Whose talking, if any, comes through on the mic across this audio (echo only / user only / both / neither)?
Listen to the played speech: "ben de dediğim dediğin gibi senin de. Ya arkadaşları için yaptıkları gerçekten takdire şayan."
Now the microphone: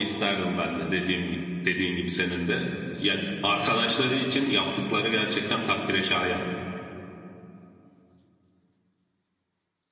echo only